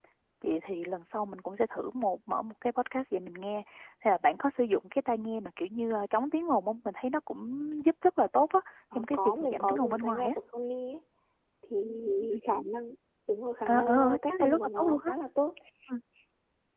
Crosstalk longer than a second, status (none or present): present